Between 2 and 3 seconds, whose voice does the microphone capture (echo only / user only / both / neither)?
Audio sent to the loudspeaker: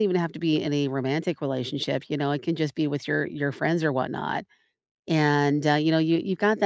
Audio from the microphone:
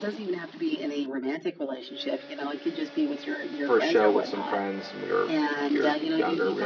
echo only